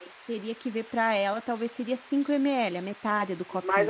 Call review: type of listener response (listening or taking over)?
taking over